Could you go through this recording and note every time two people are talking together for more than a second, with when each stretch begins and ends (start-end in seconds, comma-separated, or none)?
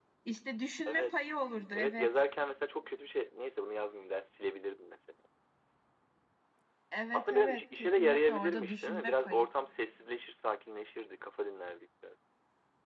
7.1-9.4